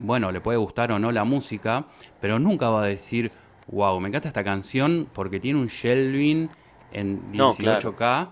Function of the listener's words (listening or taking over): listening